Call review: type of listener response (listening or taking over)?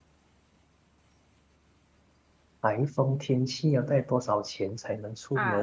taking over